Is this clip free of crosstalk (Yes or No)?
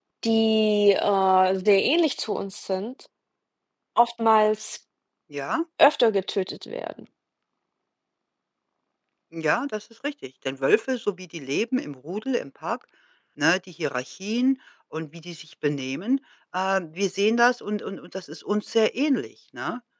Yes